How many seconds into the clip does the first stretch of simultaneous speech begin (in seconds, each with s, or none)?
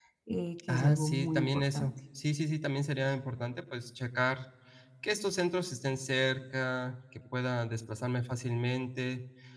0.7 s